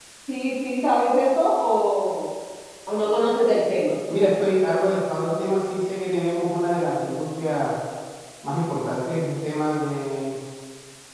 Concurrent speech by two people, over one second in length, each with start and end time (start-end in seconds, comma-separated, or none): none